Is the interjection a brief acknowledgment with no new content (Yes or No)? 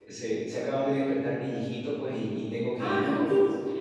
Yes